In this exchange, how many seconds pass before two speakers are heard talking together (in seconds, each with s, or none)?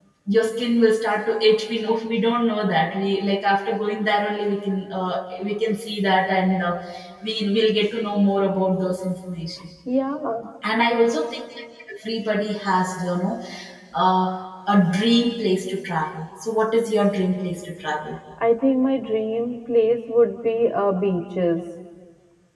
none